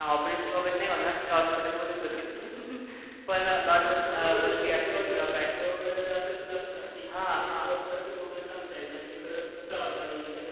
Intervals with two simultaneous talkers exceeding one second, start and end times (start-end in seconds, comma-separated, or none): 3.4-5.4